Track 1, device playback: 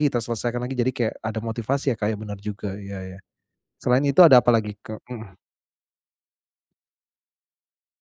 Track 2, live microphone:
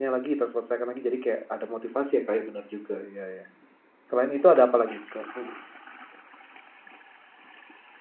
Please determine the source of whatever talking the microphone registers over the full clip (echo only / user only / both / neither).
echo only